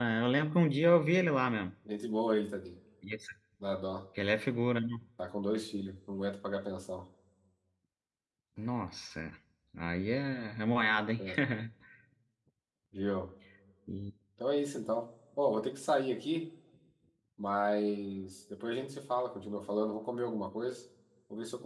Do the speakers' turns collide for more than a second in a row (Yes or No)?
No